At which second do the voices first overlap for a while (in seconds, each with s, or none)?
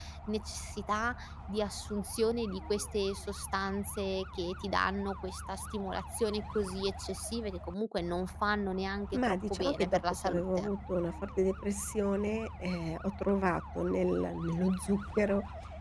9.1 s